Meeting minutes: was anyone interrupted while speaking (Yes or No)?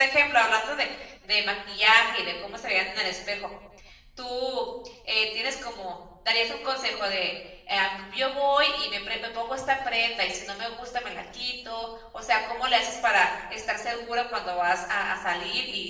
No